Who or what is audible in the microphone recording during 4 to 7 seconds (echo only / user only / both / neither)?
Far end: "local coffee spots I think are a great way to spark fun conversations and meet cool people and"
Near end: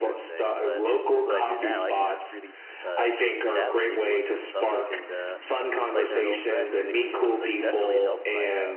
both